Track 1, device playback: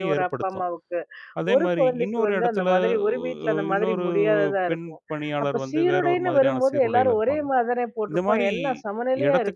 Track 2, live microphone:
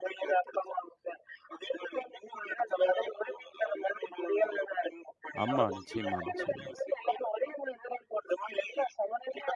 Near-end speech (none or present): present